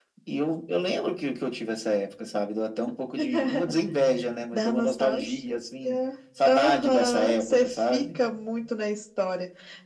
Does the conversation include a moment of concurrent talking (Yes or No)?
Yes